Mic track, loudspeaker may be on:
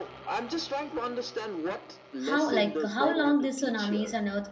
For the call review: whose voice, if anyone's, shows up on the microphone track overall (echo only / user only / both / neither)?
both